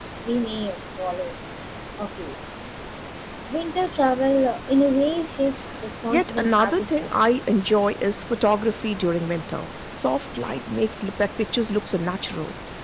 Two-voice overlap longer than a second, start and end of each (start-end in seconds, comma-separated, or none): 6.1-7.4